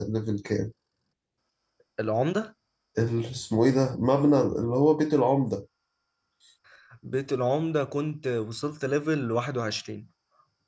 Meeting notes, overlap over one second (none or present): none